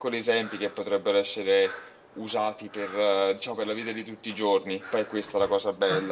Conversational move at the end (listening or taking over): taking over